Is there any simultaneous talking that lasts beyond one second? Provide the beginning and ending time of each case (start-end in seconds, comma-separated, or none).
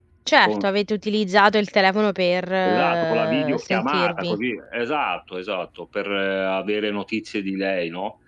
2.6-4.4